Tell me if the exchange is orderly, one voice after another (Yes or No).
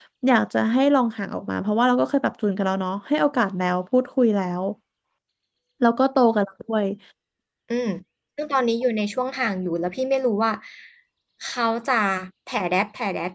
Yes